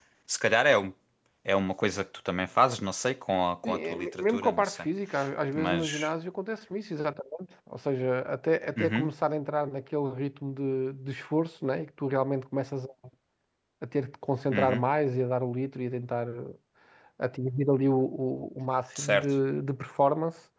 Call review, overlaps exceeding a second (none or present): present